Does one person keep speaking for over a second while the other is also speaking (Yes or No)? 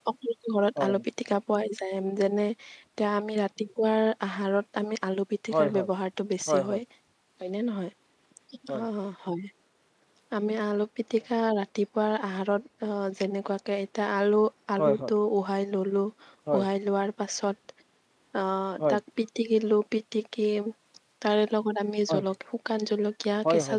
No